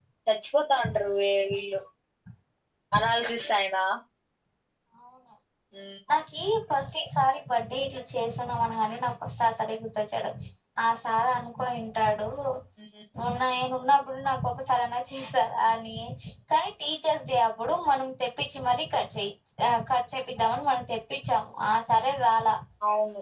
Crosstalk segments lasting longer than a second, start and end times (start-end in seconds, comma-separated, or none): none